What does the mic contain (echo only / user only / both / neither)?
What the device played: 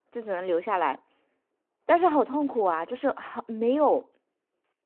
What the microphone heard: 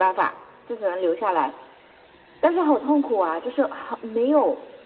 echo only